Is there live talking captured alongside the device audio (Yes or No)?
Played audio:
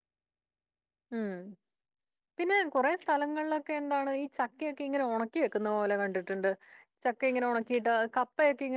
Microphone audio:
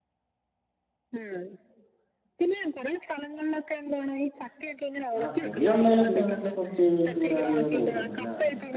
Yes